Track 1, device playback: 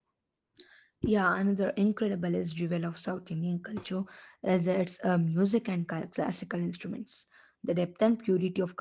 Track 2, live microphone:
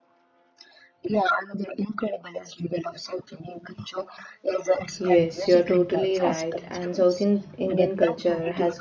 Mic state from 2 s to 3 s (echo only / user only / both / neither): echo only